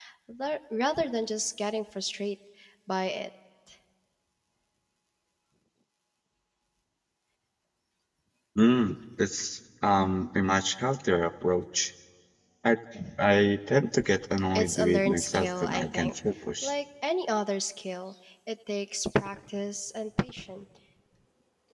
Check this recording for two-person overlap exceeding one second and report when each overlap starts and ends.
14.6-16.1

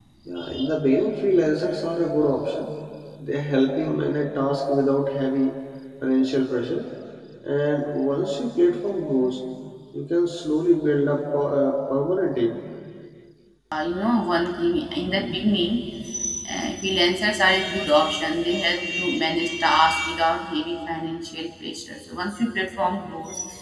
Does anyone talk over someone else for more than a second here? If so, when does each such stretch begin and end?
none

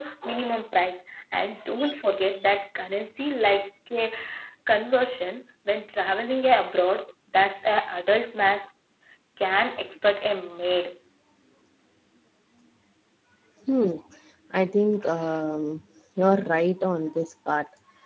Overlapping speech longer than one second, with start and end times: none

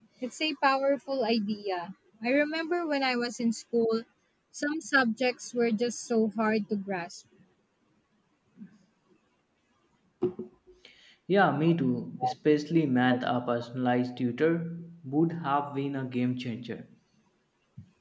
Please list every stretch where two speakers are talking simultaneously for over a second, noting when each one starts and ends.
none

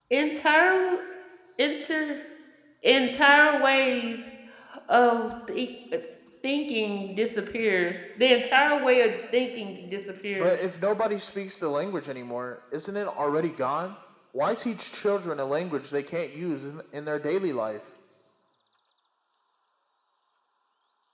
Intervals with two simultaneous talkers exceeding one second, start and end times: none

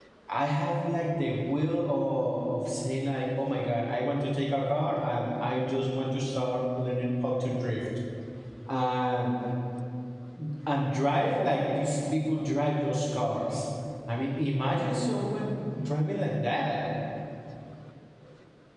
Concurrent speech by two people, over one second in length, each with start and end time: none

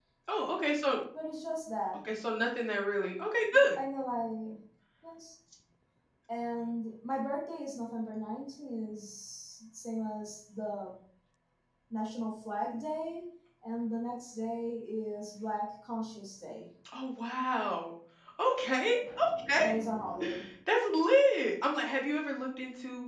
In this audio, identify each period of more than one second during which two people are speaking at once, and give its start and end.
none

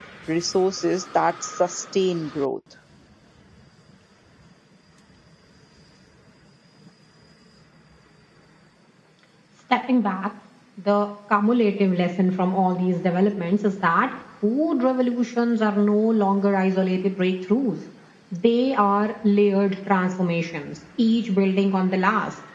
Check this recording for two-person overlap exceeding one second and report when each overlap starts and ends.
none

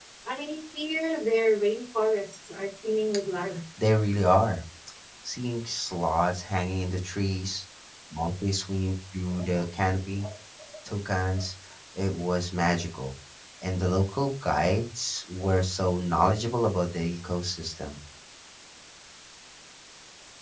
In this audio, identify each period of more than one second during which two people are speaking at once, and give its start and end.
none

